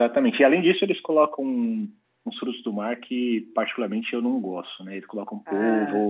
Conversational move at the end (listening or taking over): listening